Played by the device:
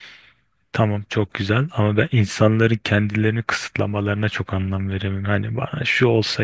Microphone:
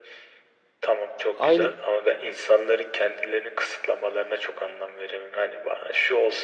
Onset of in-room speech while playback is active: 1.3 s

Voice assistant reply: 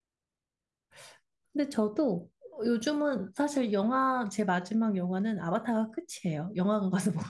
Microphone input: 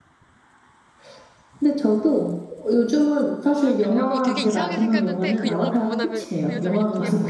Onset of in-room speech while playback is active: 3.5 s

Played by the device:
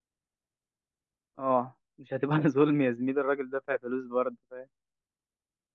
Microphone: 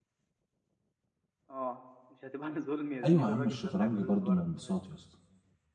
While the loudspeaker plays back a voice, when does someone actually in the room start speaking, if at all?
3.0 s

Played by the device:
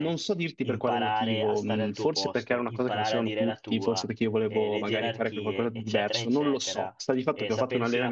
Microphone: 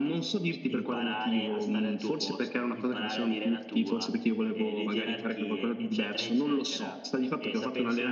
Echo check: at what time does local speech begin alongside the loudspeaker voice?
none

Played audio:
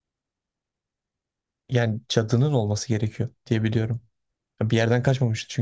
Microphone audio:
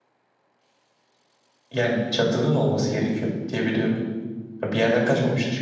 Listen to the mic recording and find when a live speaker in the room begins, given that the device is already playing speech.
none

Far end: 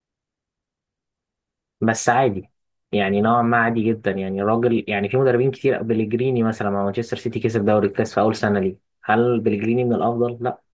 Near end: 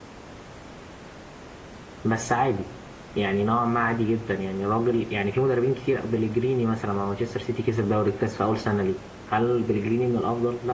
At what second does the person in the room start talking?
none

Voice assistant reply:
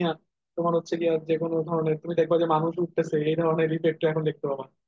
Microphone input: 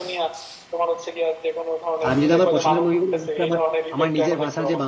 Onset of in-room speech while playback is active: 2.0 s

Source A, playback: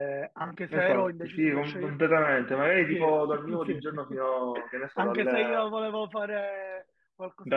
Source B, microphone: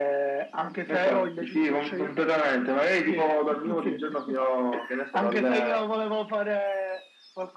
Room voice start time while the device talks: none

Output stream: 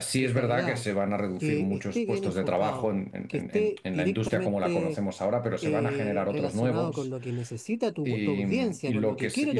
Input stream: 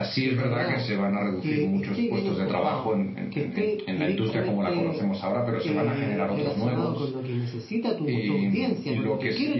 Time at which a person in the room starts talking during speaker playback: none

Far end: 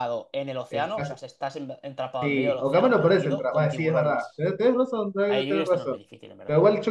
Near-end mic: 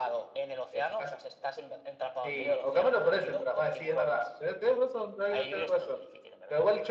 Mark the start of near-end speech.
none

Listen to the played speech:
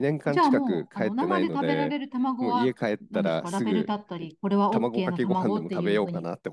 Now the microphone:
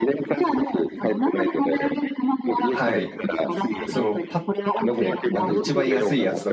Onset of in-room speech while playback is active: 2.7 s

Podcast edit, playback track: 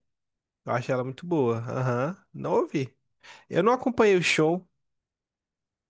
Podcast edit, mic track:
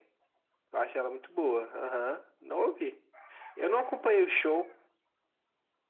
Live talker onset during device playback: none

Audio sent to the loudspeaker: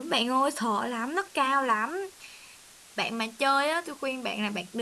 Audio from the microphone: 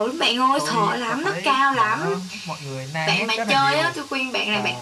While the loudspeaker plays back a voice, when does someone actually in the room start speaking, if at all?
0.6 s

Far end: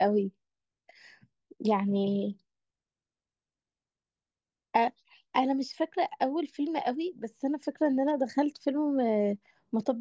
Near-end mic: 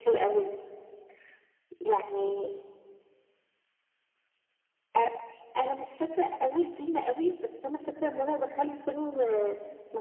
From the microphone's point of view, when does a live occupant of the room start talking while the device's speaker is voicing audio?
none

